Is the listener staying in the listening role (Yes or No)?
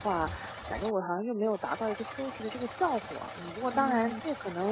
Yes